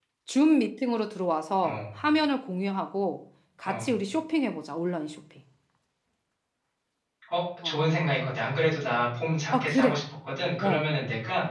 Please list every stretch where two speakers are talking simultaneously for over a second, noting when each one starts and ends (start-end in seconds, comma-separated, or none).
none